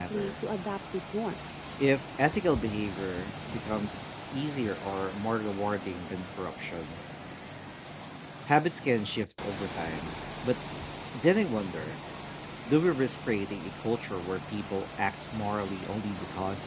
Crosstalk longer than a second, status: none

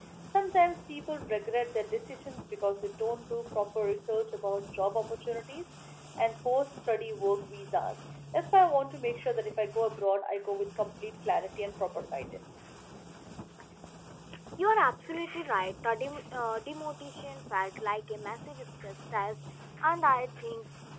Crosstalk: none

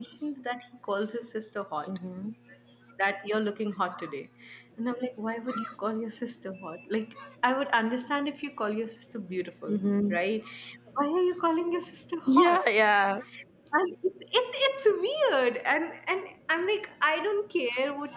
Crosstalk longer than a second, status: none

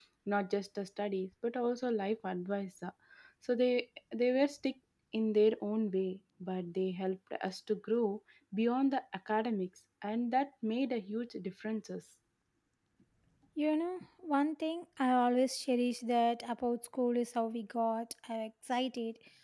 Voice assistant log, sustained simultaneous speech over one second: none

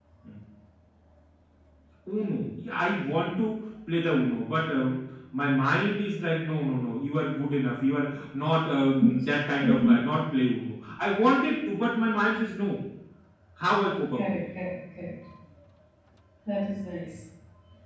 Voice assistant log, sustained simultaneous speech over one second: none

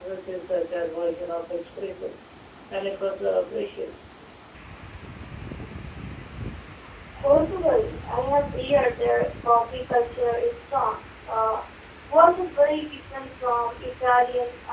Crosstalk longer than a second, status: none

